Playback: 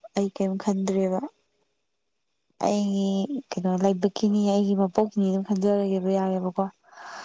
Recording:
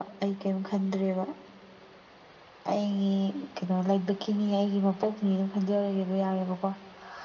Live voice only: none

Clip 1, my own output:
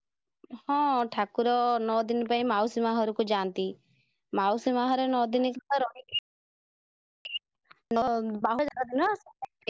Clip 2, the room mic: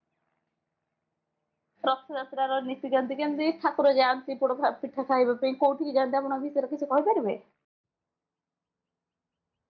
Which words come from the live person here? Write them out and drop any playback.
ରଥଯାତ୍ରା ର ନିତିକାନ୍ତି କେମିତି ଠାକୁର ଯାଆନ୍ତି। ପୋଡ଼ ପି ପିଠା ଖାଇବା ପାଇଁ କୋଉଠିକି ଯାଆନ୍ତି ଆପଣ ବିଷୟରେ କିଛି କହିପାରିବେ

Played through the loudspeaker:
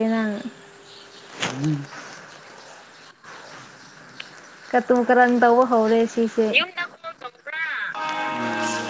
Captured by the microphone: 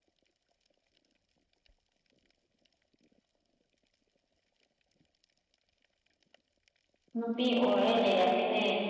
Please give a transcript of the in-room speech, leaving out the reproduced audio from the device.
ꯅꯨꯄꯤ ꯑꯣꯏꯔ ꯂꯩꯔꯝ ꯃꯤꯅꯦ

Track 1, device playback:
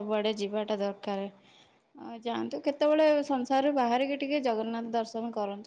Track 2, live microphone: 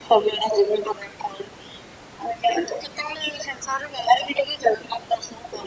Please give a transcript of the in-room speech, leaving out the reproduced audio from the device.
none

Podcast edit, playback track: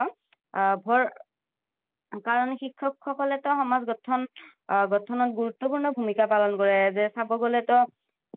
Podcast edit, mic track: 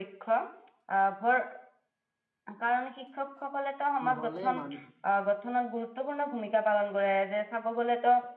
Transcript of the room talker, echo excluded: নহ'লে মান

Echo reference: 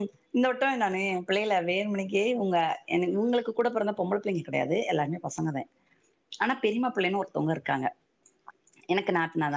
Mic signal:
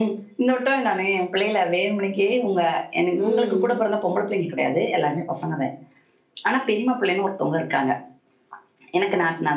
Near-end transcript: ம்

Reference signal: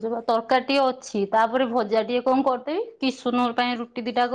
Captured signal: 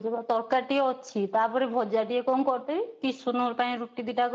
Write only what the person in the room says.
none

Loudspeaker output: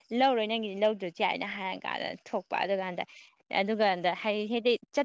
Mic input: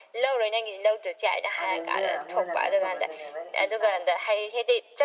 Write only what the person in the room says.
ꯑꯗꯧꯗꯨꯗ ꯃꯣꯏꯅ ꯀꯩꯅꯣ ꯇꯧꯕꯗꯨꯗꯅꯦ ꯑꯩꯅ ꯏ ꯀꯥꯔꯤꯖꯦ

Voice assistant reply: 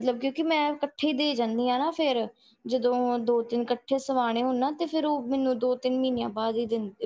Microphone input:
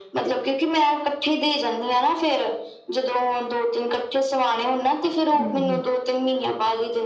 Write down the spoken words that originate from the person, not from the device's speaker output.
ਹਾਂਜੀ

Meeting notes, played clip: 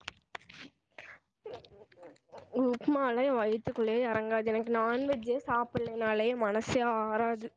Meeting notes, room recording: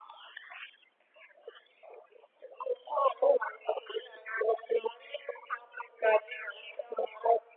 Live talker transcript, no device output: none

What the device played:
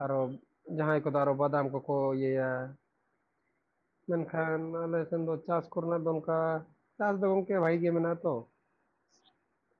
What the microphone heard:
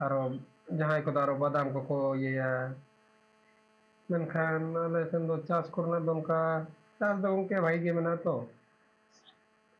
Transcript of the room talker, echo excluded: none

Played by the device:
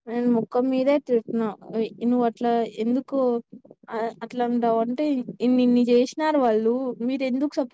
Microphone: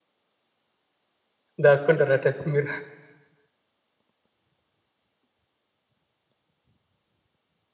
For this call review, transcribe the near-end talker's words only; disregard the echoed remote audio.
దాక్కుంటర్ అట్టయితే మీరు

